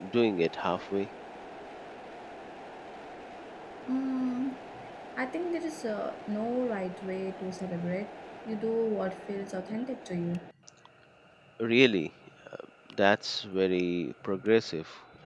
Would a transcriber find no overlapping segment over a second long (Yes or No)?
Yes